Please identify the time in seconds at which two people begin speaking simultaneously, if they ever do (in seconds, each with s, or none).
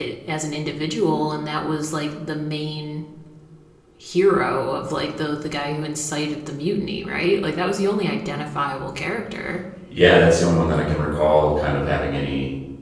none